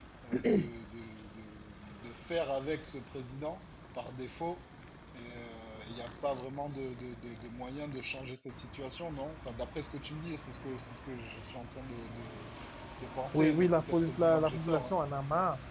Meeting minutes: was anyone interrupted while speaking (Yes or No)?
Yes